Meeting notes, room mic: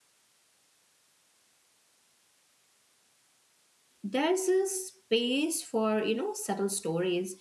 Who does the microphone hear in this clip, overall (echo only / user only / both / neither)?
user only